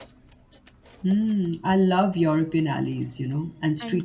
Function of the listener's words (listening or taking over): listening